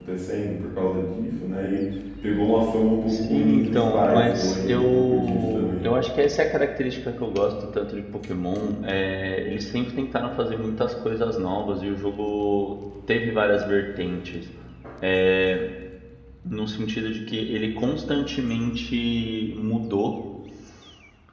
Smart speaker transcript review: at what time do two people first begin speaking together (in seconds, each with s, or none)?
3.1 s